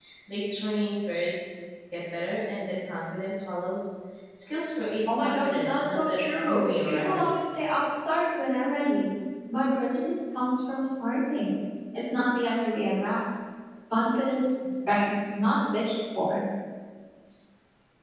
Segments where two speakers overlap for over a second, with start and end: 5.2-7.3

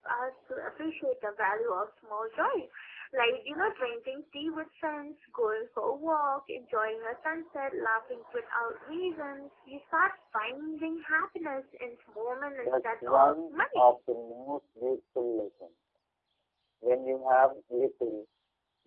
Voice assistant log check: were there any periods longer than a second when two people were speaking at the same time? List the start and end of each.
12.5-14.0

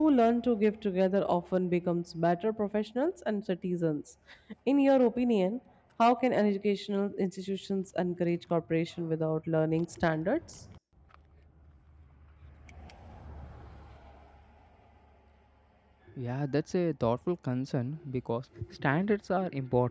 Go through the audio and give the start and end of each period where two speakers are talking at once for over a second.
none

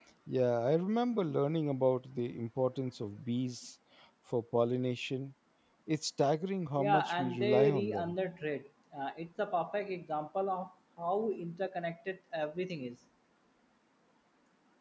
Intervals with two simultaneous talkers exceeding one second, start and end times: 6.8-8.1

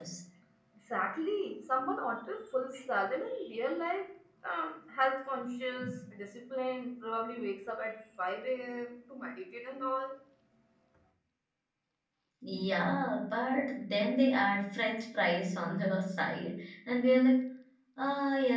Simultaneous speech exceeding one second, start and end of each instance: none

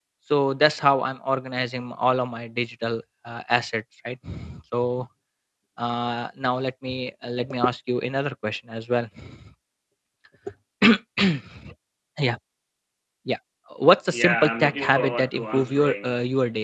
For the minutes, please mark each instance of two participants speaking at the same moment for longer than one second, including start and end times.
14.1-16.1

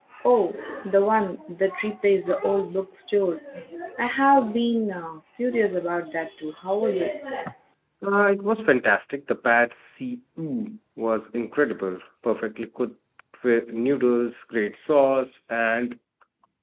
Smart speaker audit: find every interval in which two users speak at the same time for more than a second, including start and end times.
none

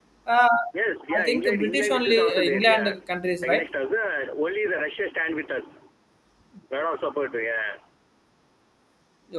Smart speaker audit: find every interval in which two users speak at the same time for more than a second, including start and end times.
1.1-2.9

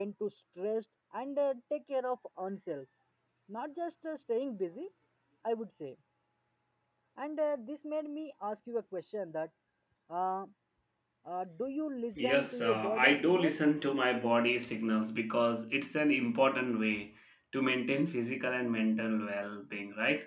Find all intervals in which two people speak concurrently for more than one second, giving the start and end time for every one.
12.2-13.5

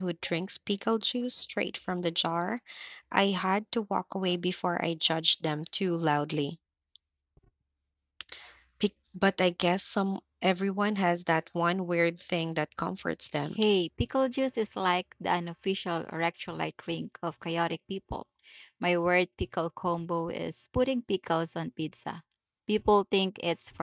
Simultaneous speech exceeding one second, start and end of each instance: none

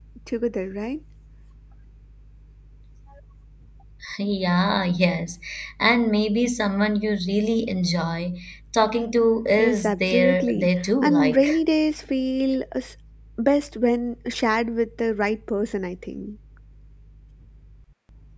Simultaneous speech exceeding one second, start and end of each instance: 9.6-11.5

